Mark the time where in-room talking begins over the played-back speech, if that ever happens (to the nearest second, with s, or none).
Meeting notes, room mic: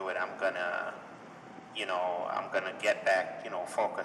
none